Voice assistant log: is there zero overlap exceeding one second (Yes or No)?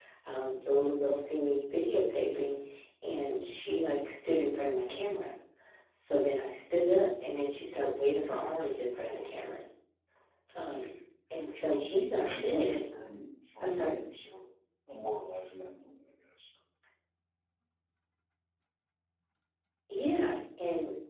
No